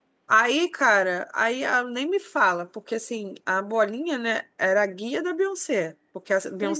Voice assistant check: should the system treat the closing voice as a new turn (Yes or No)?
No